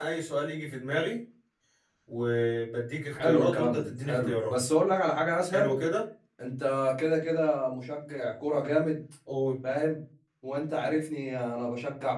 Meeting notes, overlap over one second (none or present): present